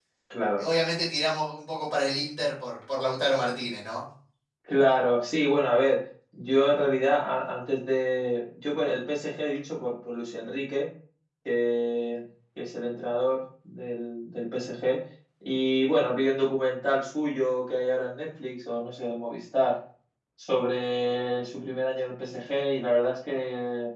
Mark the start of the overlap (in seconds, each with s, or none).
none